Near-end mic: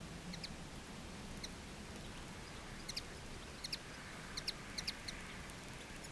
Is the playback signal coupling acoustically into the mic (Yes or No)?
No